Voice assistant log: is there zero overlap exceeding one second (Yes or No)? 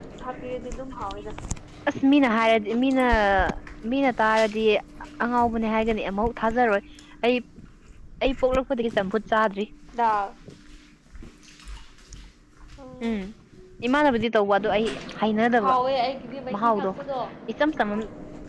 Yes